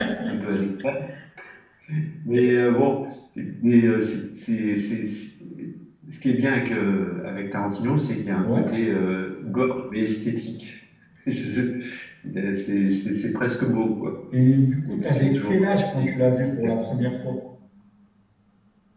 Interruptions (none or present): present